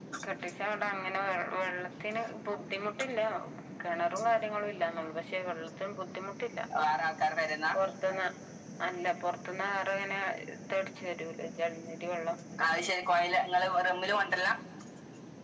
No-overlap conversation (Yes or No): Yes